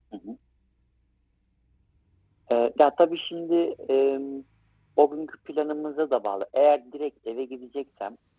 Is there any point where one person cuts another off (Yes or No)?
No